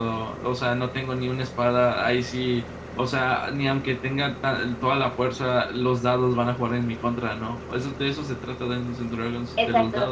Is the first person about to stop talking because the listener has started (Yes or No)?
Yes